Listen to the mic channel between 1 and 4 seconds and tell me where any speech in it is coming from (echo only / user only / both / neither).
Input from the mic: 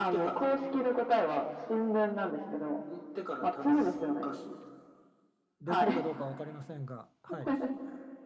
echo only